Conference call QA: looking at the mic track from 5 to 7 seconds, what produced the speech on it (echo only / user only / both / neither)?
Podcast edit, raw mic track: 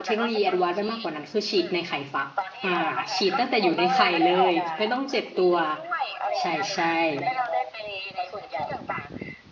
both